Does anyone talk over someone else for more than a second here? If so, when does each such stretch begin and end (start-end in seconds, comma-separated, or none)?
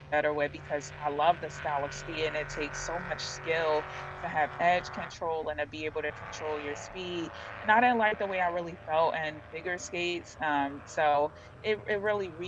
none